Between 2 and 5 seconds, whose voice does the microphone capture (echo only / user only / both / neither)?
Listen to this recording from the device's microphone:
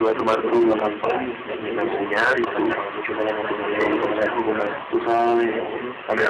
both